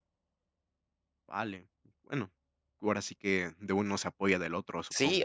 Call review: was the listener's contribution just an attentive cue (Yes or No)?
No